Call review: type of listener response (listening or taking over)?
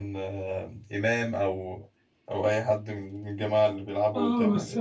taking over